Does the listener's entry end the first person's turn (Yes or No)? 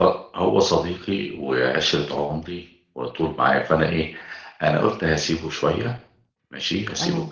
No